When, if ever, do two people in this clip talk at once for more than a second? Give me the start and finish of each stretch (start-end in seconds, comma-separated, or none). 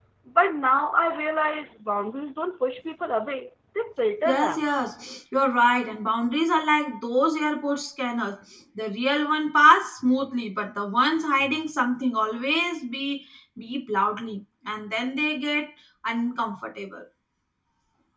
none